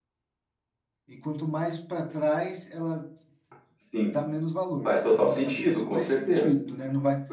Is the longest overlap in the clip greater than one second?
Yes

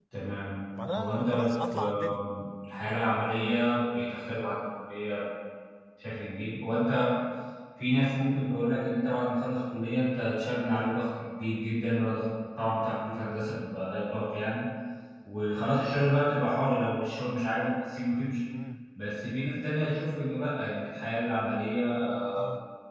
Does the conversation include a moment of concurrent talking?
Yes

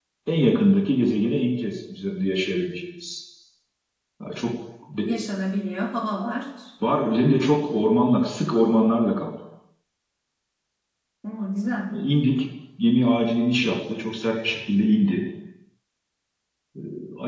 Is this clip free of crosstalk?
Yes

